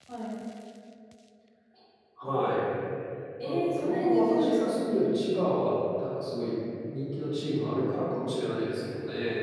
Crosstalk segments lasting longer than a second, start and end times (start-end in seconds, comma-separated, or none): 3.4-4.8